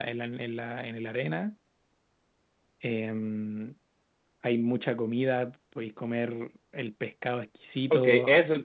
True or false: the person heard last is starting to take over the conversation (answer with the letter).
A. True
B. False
A